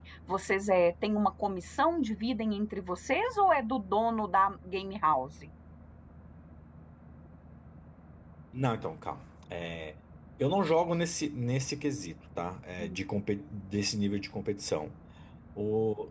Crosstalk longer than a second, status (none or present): none